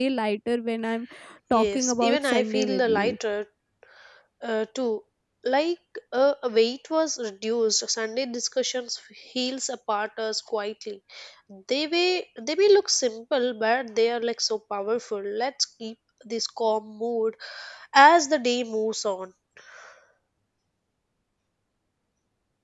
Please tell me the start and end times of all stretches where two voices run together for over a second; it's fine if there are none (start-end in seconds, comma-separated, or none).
1.5-3.1